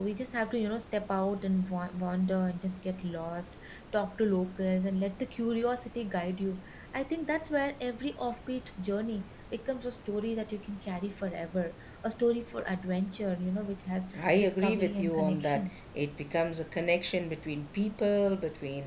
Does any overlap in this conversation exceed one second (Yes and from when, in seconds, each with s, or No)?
Yes, from 14.1 s